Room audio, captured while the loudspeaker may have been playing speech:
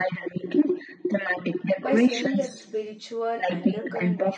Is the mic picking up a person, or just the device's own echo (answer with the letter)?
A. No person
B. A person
B